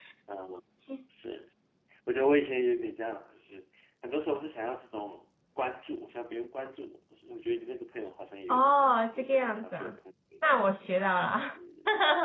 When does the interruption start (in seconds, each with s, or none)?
8.5 s